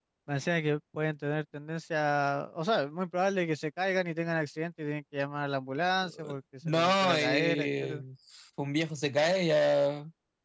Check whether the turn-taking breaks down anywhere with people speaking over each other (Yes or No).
Yes